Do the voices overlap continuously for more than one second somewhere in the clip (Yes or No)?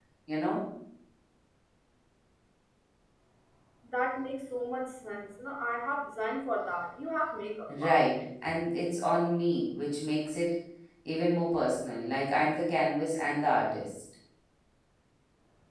No